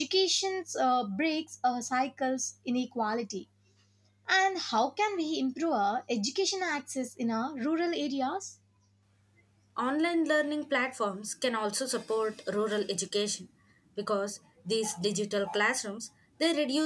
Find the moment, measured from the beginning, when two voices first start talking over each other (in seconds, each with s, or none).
none